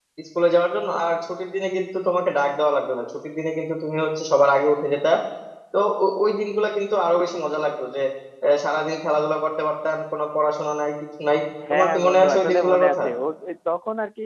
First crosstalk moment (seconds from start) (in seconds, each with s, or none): 11.6 s